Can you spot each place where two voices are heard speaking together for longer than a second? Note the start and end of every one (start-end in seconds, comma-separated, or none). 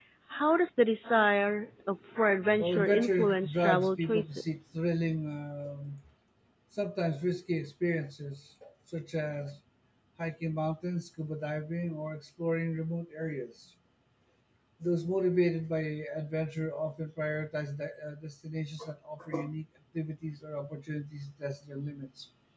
2.6-4.8